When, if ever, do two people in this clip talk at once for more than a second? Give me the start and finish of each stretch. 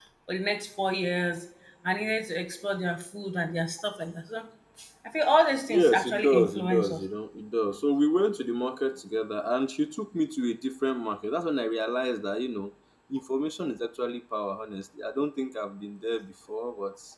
5.7-7.0

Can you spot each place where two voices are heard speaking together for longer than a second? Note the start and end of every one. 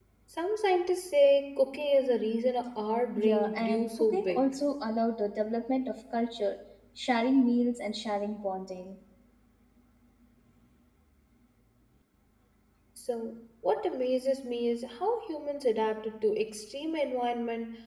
3.1-4.4

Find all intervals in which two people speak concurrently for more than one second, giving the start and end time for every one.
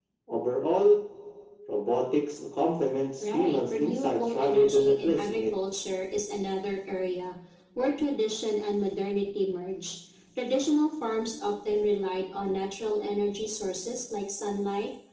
3.2-5.4

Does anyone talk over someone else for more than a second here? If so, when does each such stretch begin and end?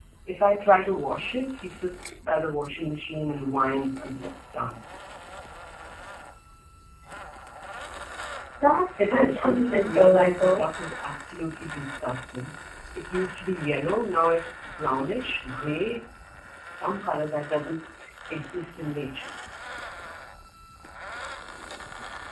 9.0-10.7

